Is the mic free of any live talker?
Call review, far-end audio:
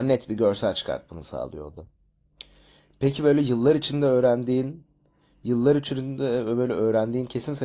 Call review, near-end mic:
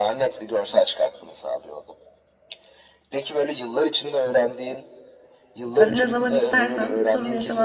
No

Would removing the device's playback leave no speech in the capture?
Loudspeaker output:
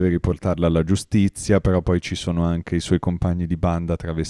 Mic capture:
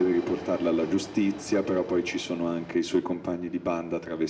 Yes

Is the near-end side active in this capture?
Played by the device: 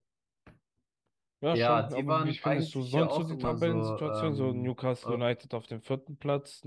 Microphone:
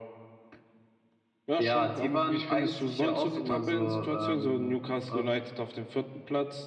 No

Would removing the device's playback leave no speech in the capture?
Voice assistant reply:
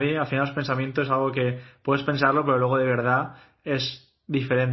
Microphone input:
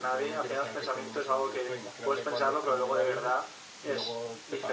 No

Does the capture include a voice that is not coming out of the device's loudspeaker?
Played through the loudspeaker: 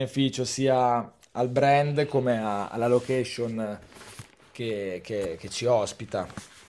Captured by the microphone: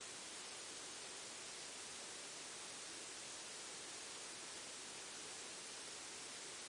No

